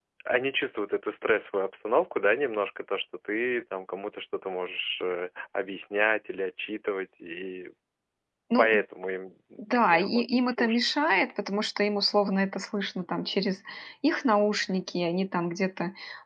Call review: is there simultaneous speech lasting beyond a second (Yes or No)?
Yes